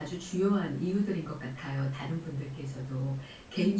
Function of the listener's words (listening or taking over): listening